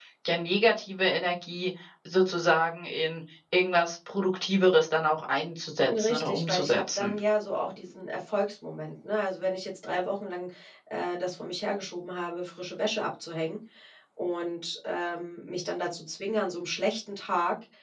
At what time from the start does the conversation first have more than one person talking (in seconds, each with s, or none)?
5.8 s